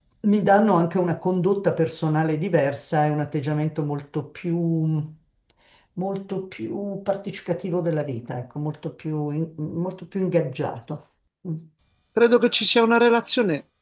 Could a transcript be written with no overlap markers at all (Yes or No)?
Yes